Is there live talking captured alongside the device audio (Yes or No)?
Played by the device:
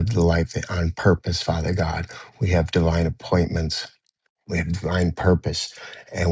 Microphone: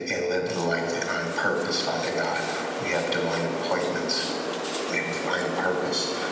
No